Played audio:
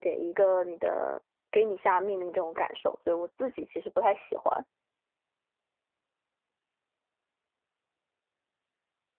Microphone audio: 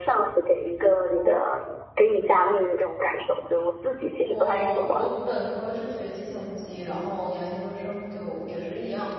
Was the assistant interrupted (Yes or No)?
Yes